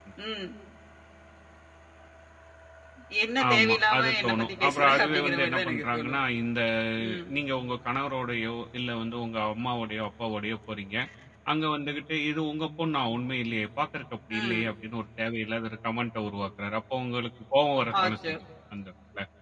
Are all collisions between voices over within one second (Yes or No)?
No